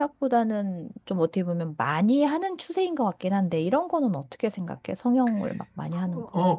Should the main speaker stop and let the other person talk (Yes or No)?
Yes